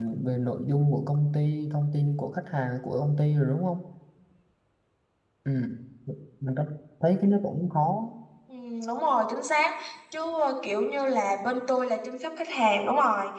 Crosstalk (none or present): none